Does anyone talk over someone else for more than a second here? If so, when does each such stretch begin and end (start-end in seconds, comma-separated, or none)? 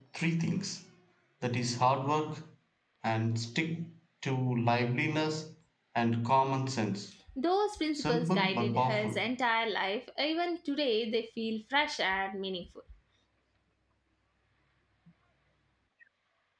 7.9-9.2